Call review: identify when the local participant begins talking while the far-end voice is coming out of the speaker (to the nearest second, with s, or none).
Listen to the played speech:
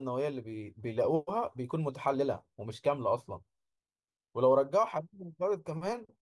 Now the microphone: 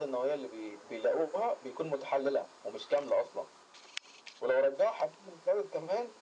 none